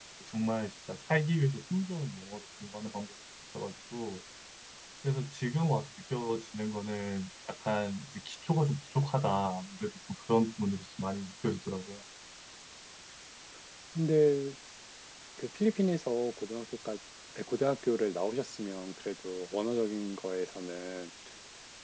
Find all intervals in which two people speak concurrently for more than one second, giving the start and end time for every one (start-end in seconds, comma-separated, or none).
none